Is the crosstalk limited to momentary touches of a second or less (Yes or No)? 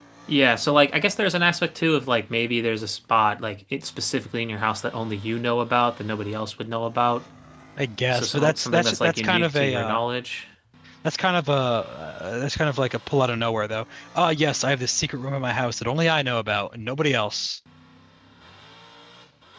No